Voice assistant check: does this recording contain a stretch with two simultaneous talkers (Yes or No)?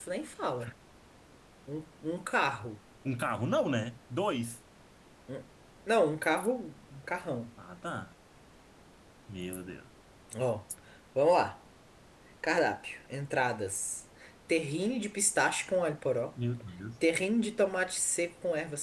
No